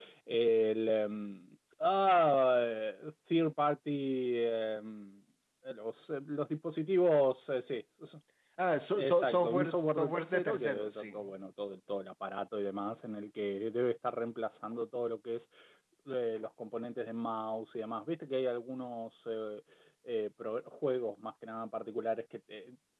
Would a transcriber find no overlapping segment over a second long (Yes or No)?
No